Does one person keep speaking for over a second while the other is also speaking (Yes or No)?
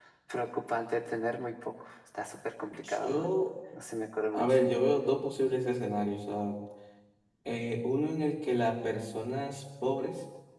No